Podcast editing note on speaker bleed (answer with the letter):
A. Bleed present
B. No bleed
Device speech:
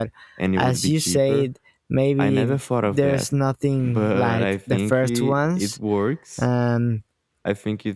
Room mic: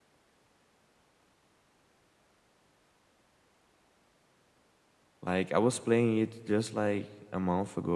B